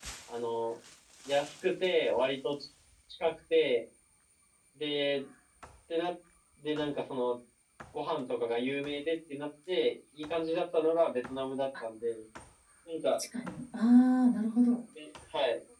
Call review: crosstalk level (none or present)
none